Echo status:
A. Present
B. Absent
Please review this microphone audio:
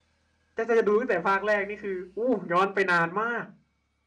B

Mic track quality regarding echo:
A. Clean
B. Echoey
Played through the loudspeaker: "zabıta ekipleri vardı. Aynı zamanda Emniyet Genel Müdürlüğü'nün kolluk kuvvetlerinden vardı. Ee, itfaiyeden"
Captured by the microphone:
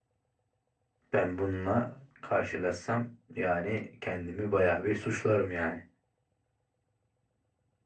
A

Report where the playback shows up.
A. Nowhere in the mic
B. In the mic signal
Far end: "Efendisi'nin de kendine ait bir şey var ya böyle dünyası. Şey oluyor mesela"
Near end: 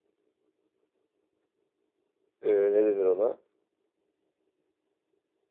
A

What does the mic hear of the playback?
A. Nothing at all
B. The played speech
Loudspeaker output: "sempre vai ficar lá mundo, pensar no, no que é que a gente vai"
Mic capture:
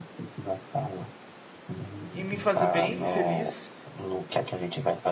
B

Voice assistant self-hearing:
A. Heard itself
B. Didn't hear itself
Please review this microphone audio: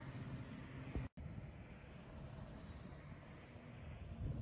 B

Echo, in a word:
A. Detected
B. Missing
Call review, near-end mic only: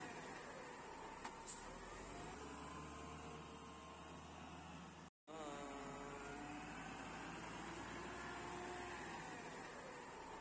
B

